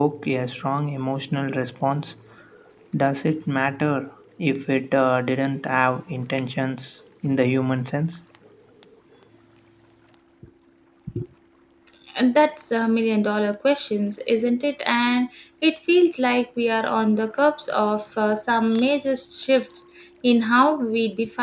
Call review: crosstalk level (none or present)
none